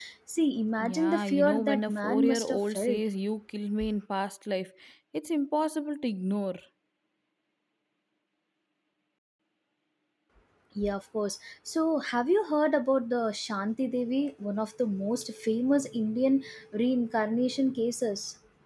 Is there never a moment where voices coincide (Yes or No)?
No